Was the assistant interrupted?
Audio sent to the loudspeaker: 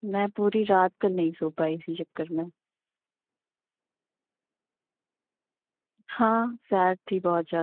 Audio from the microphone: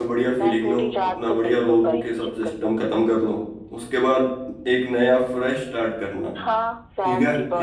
Yes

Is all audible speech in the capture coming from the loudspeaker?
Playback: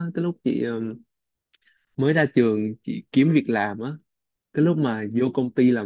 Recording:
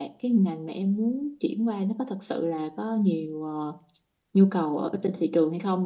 No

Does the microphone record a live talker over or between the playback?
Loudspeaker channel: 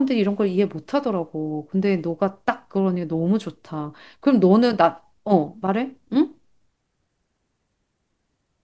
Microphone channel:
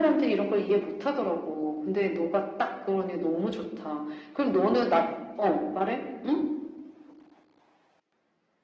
No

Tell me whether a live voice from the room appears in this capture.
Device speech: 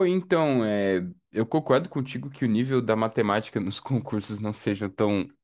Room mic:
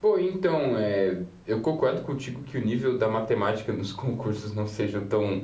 No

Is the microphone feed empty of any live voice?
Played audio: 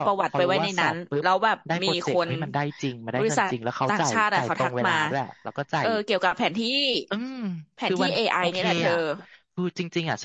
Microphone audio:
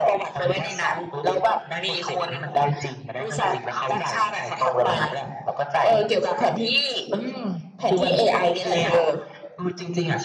Yes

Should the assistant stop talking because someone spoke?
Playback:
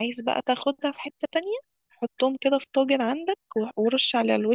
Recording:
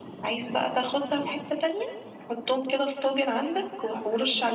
No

